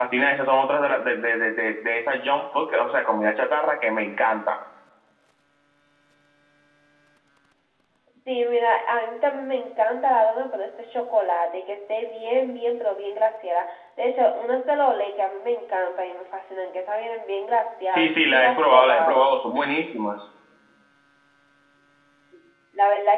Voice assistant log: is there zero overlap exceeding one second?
No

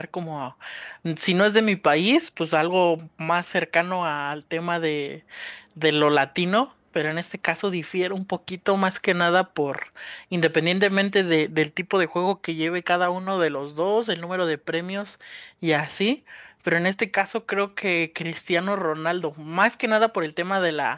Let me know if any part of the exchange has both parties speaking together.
No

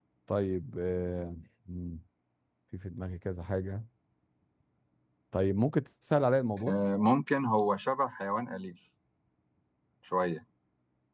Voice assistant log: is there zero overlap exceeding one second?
Yes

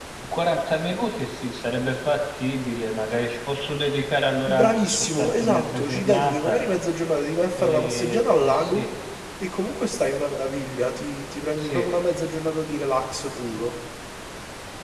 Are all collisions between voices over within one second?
No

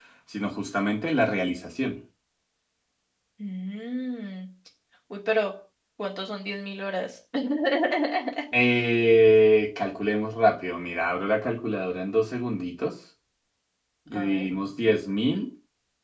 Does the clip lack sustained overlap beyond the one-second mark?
Yes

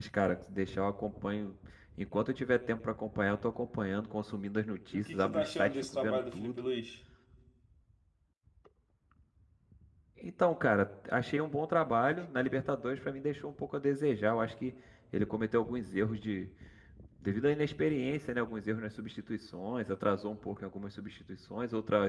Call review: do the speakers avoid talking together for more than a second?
No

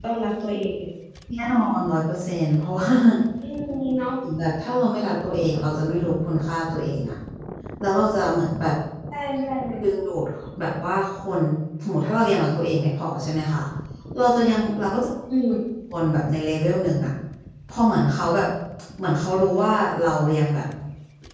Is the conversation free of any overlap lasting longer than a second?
Yes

